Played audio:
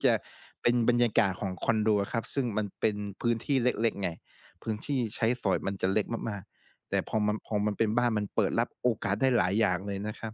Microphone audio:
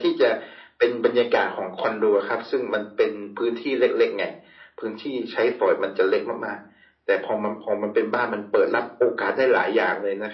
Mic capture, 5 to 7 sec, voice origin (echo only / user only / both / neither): echo only